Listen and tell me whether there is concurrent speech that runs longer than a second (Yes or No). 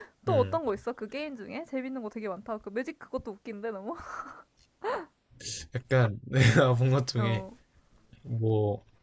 No